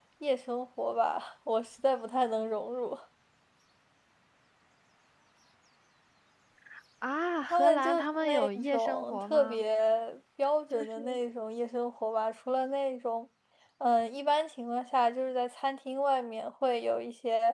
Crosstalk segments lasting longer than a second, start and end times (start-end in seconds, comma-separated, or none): 7.4-9.6